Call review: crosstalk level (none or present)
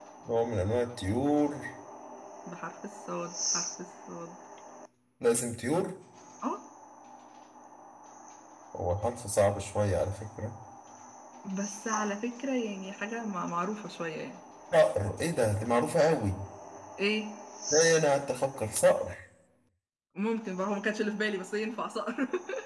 none